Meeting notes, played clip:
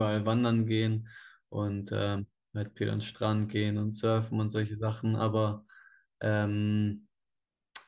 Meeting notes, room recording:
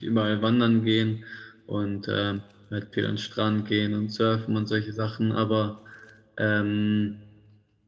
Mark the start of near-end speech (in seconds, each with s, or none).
none